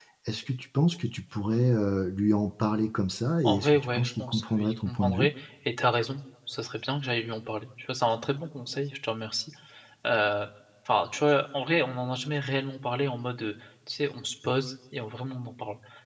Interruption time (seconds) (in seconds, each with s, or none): 3.4 s